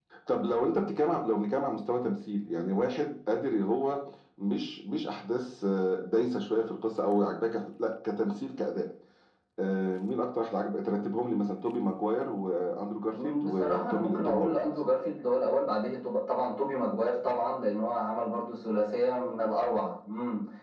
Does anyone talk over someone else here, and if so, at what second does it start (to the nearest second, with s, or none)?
13 s